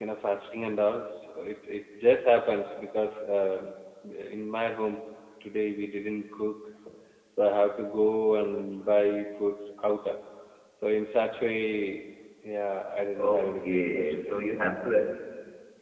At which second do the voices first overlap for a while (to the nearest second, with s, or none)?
13 s